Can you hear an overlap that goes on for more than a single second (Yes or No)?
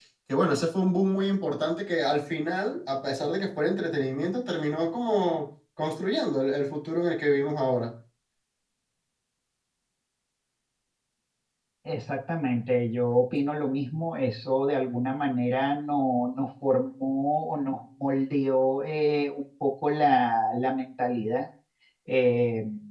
No